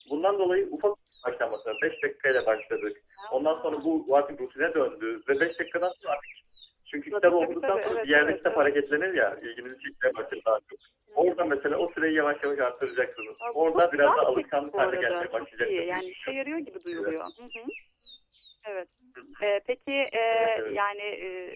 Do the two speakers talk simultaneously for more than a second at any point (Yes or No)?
Yes